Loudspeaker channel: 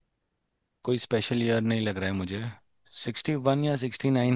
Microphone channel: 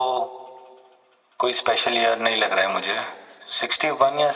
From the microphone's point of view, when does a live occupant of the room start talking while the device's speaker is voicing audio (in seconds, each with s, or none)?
none